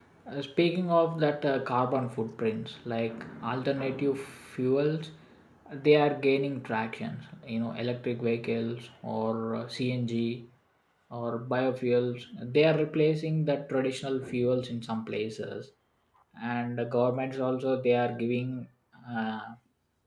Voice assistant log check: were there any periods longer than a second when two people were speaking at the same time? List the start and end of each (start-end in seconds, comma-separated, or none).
none